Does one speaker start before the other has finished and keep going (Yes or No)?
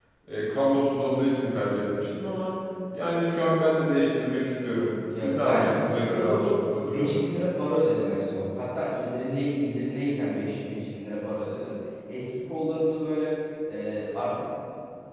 Yes